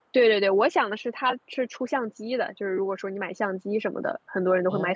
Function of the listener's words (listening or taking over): listening